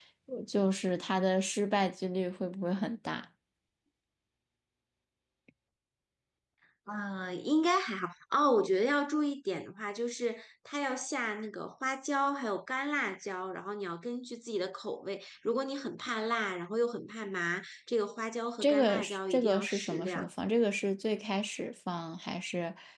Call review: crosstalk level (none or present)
present